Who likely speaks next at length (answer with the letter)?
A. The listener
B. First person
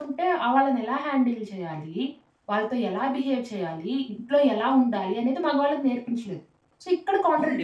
A